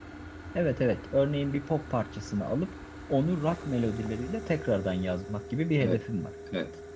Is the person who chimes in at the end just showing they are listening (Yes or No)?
No